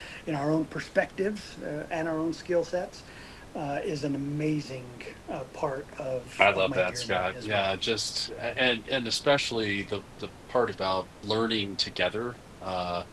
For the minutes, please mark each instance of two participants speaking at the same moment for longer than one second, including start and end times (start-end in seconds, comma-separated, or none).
6.4-7.8